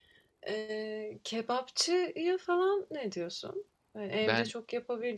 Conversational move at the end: listening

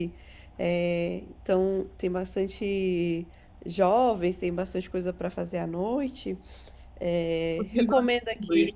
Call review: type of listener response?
taking over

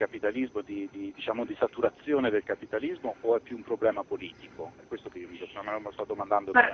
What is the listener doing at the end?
taking over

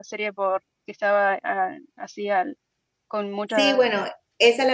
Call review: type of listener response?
taking over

